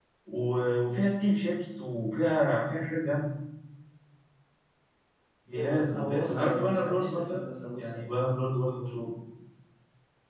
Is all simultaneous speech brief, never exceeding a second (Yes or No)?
No